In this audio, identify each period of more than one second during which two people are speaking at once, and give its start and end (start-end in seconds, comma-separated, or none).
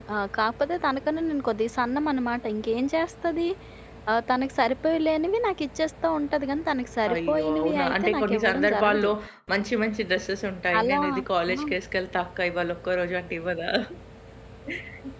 7.1-9.1